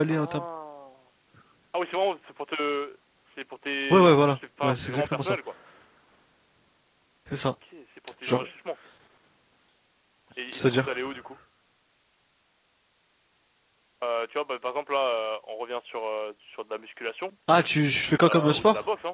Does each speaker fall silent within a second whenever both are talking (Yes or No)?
No